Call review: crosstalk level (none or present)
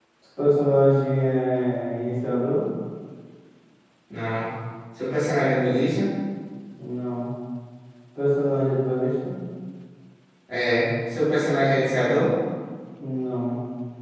none